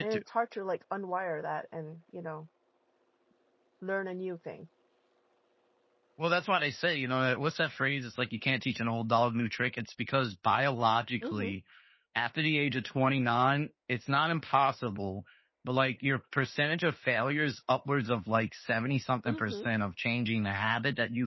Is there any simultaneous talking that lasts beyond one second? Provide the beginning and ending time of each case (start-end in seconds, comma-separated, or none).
none